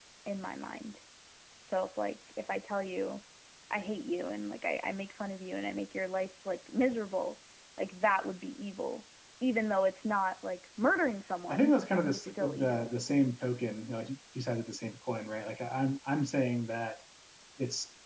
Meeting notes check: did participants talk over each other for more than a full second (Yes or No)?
Yes